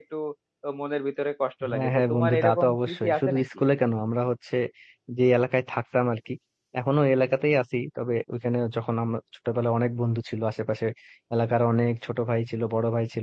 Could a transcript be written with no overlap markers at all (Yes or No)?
No